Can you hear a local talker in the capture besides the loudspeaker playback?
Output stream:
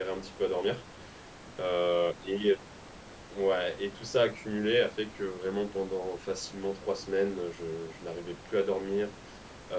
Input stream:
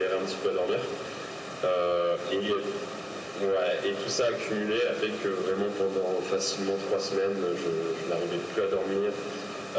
No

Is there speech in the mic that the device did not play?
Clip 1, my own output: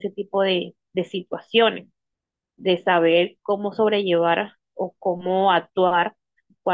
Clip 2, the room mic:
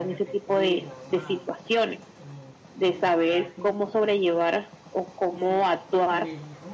Yes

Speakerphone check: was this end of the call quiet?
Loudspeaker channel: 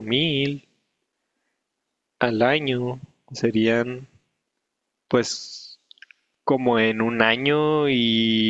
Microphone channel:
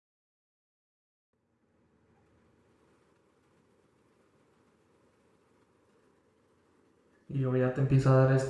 No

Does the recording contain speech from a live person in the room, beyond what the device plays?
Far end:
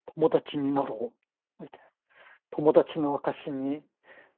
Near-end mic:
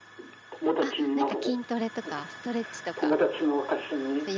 Yes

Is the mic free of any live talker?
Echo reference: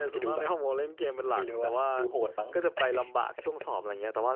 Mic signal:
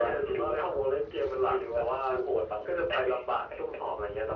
Yes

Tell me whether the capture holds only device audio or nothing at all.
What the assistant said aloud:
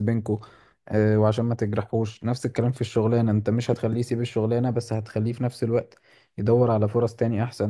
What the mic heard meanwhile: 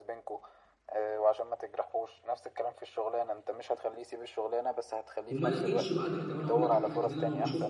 No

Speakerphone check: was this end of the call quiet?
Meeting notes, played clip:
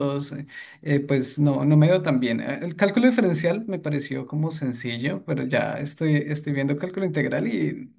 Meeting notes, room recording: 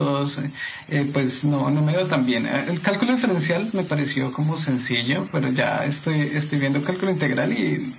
Yes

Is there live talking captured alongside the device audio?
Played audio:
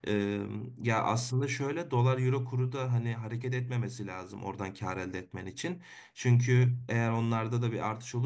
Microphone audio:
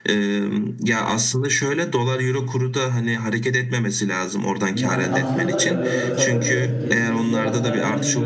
Yes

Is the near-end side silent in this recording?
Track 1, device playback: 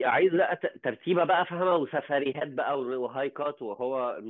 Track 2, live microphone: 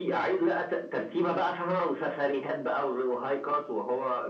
Yes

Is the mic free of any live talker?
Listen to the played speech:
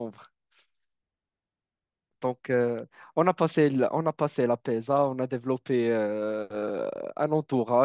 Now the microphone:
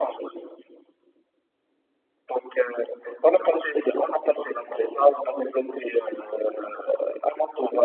Yes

